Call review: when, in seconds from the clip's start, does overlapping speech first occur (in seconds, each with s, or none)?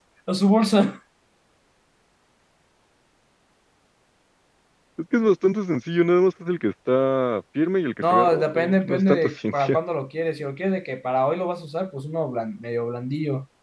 8.0 s